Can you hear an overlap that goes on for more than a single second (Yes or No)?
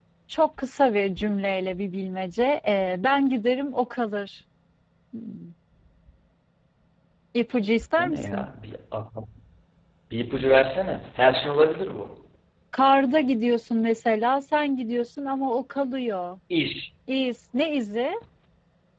No